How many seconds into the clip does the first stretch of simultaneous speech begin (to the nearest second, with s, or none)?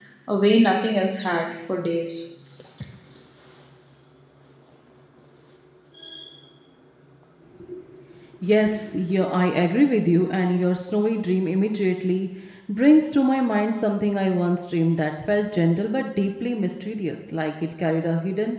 none